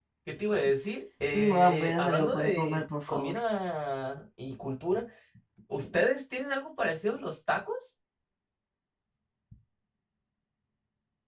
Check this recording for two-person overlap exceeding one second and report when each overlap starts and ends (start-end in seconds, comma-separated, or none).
1.3-3.4